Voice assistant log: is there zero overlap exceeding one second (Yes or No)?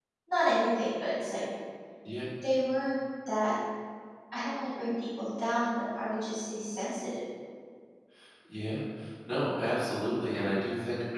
Yes